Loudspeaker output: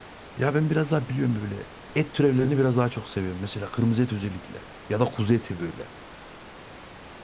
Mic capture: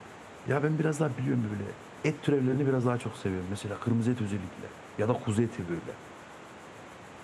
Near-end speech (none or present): none